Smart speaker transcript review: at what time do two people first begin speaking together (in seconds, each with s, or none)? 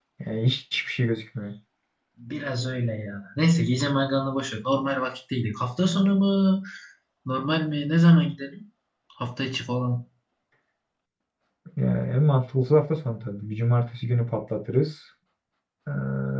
none